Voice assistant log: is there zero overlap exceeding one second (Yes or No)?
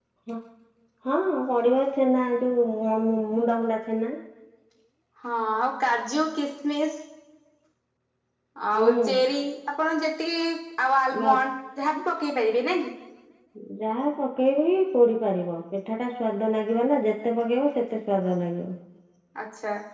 Yes